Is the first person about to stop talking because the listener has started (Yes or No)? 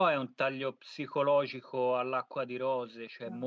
No